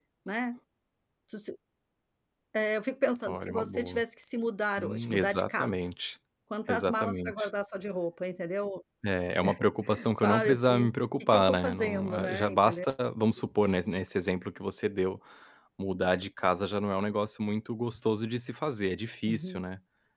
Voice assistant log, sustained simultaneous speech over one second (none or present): present